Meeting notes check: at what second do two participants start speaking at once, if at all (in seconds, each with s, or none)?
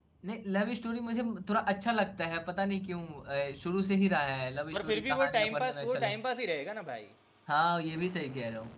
4.7 s